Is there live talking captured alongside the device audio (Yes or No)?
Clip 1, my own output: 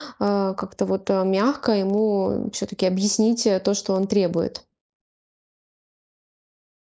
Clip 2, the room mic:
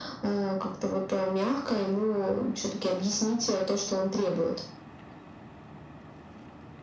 No